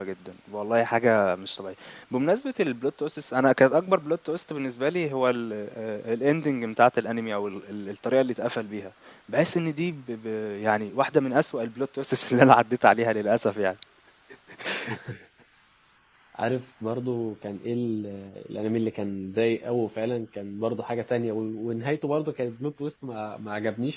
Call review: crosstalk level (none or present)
none